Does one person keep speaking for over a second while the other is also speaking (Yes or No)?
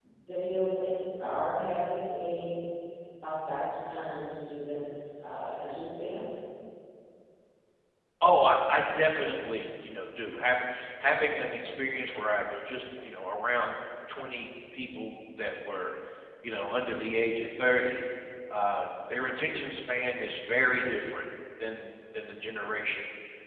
No